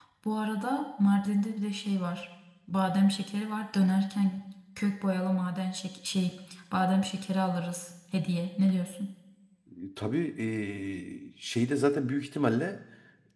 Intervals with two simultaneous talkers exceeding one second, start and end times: none

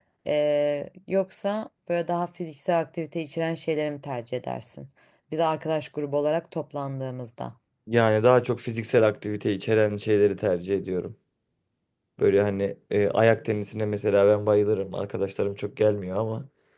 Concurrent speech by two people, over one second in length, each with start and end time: none

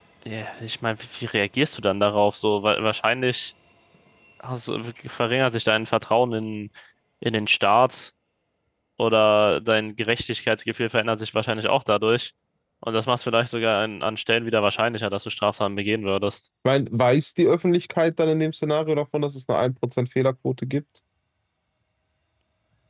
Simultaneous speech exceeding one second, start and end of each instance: none

